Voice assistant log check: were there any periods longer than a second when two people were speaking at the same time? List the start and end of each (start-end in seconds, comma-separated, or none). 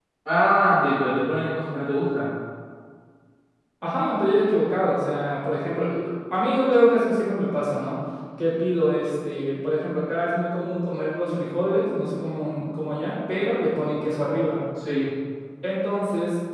none